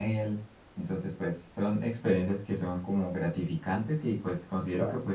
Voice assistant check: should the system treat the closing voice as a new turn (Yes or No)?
No